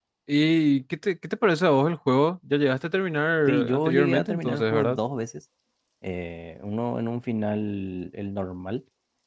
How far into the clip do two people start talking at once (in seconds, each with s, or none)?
3.5 s